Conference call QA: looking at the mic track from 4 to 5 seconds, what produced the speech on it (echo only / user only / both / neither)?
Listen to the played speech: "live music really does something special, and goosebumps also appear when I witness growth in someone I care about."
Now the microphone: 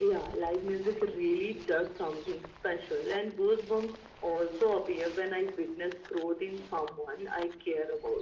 echo only